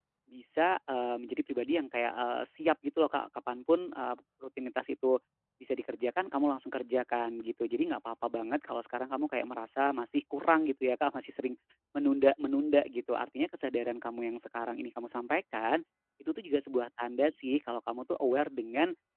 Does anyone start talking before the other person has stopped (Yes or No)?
No